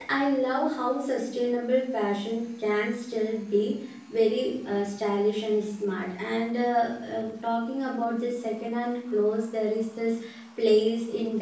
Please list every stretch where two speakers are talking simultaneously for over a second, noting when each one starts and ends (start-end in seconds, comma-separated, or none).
none